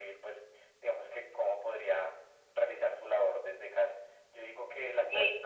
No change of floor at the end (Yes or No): Yes